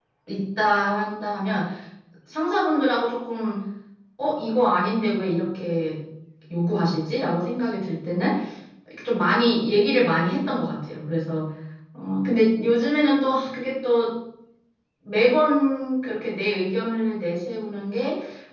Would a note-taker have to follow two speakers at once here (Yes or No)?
No